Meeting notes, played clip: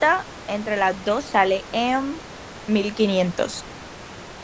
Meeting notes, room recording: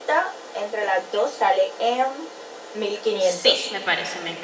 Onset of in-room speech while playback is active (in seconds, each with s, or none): 3.2 s